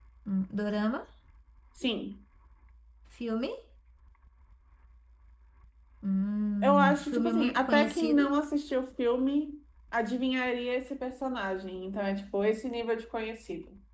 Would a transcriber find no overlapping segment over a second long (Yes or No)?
No